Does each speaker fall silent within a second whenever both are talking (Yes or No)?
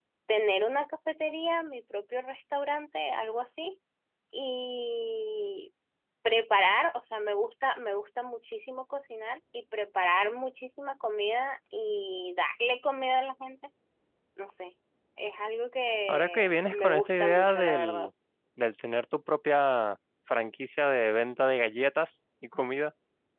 No